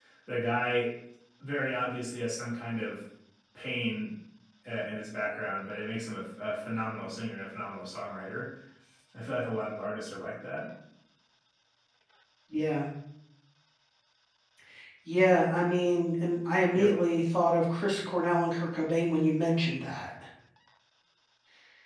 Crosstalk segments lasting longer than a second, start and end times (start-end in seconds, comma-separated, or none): none